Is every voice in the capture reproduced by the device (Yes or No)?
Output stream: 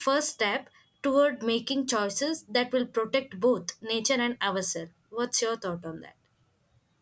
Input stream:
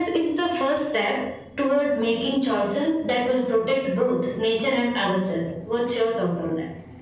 Yes